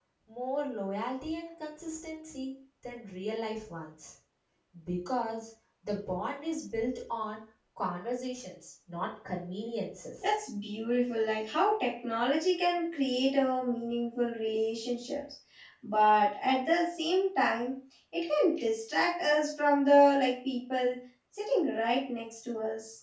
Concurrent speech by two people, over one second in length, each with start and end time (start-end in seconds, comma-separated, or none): none